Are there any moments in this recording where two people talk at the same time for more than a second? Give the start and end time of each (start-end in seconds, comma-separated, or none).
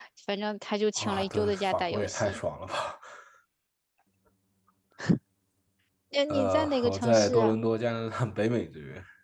1.0-2.4, 6.3-7.6